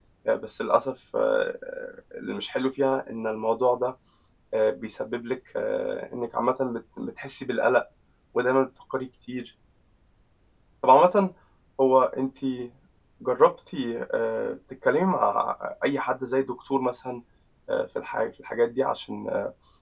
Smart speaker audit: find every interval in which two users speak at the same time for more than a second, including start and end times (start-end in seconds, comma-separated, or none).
none